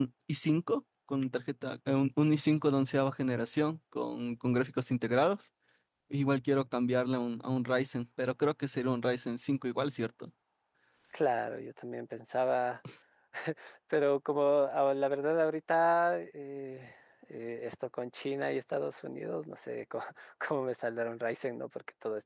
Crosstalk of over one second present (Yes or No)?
No